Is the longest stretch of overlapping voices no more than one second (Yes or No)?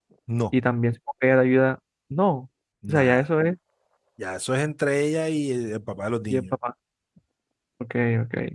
Yes